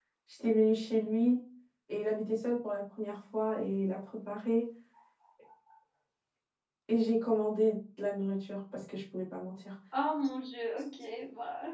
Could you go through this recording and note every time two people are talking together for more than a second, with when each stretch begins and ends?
none

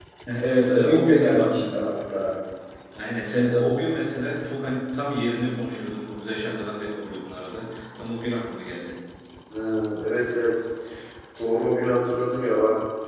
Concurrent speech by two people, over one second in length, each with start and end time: 0.7-1.9

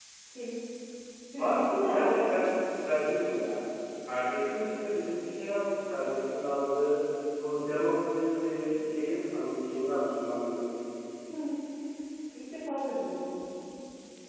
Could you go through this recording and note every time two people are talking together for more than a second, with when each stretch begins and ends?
1.4-2.6

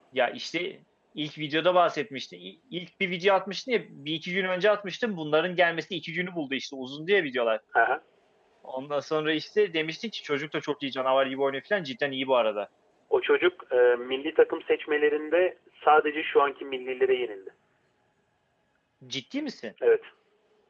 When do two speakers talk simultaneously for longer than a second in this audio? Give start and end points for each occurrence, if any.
none

